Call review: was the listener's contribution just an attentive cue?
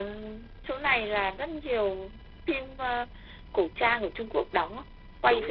No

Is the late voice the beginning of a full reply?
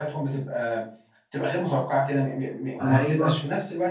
No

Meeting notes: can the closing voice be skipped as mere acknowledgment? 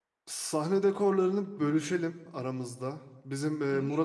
Yes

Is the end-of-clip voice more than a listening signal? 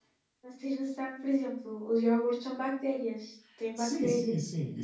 Yes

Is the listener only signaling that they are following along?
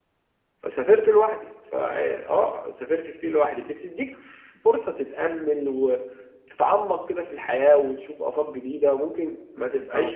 Yes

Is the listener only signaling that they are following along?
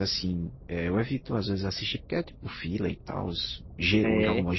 Yes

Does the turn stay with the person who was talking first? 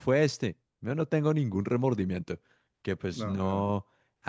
Yes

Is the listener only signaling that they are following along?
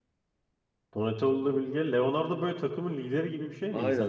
No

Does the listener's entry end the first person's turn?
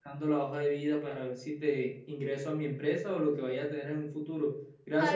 Yes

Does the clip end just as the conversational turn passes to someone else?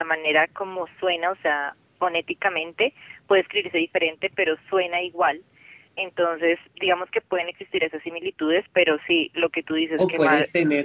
Yes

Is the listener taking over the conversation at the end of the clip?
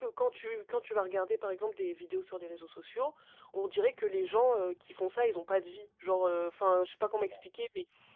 No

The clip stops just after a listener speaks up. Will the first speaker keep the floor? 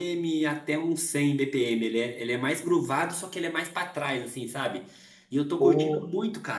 Yes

